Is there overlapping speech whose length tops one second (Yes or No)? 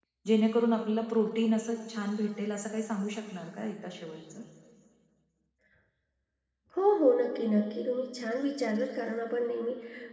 No